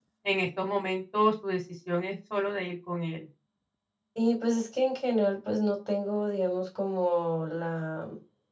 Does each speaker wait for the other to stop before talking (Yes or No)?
Yes